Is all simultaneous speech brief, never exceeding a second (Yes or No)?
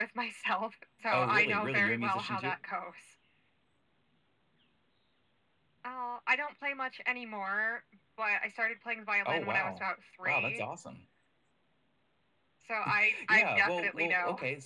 No